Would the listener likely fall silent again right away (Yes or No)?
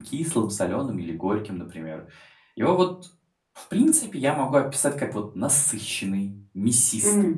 Yes